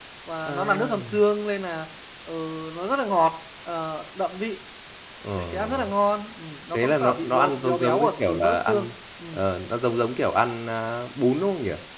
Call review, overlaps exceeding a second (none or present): present